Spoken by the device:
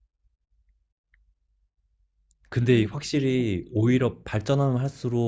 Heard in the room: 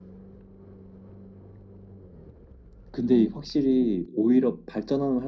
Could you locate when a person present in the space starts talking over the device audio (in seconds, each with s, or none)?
none